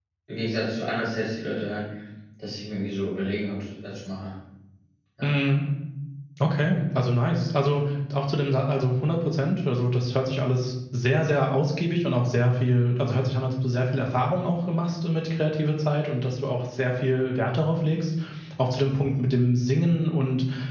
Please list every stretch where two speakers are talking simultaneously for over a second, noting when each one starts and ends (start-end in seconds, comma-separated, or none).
none